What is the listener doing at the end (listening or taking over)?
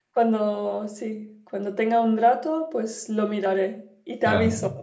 taking over